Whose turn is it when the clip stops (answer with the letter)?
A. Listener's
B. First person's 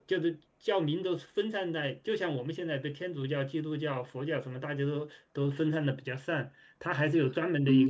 A